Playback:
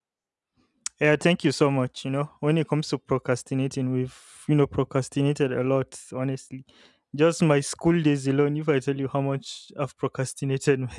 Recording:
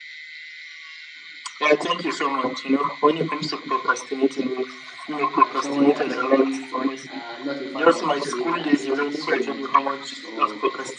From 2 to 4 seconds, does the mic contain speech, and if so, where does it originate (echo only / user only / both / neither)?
echo only